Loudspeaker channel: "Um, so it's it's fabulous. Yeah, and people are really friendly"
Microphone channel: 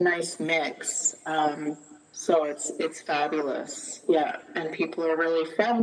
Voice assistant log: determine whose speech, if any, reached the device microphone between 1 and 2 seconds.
echo only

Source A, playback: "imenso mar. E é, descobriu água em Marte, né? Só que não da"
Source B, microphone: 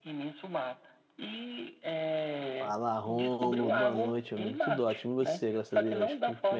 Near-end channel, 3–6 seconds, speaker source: both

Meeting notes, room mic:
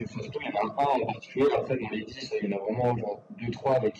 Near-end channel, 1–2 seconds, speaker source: echo only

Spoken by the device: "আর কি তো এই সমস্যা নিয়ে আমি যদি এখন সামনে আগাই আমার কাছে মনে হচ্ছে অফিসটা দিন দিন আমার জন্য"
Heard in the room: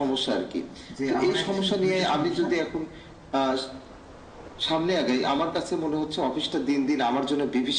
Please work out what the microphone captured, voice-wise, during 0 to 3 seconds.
both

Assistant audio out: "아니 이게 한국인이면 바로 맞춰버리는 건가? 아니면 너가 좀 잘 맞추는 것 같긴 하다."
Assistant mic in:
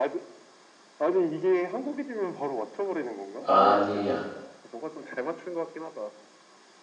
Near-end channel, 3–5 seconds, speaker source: both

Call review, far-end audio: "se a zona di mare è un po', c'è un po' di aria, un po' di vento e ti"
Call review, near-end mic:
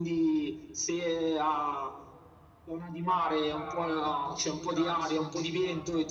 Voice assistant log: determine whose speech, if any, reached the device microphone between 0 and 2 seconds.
echo only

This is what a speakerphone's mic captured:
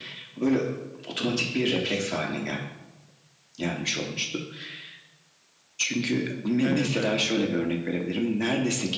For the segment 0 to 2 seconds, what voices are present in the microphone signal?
echo only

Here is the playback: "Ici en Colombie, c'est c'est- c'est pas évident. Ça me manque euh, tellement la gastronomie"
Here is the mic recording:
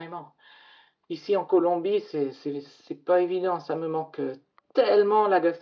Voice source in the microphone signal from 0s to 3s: echo only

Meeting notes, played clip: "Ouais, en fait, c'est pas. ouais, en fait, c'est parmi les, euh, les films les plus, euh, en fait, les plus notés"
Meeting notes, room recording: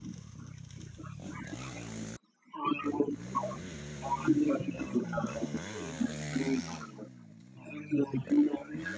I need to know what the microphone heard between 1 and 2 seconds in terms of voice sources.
neither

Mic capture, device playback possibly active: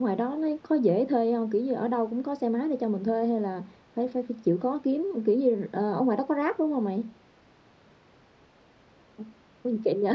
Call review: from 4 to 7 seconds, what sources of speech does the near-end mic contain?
user only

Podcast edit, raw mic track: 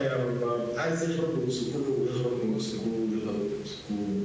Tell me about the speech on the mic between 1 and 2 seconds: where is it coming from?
echo only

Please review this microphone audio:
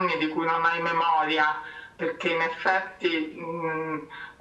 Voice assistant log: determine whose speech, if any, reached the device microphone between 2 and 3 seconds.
echo only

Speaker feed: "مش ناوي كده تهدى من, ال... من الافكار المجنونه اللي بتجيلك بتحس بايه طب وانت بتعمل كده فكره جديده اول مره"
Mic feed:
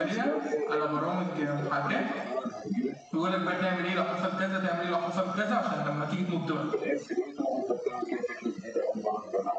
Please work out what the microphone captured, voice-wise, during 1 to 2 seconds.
both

